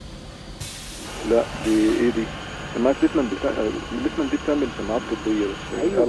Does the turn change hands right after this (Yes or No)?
Yes